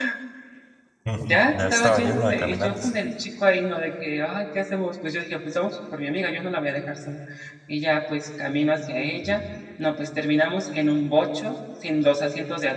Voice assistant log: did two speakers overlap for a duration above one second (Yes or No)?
Yes